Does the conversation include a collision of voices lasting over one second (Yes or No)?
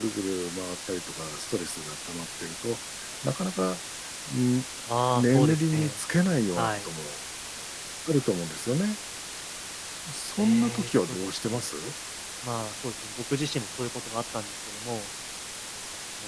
Yes